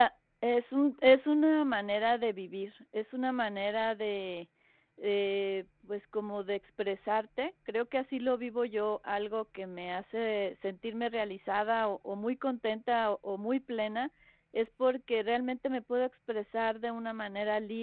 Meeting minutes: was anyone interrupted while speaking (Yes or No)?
No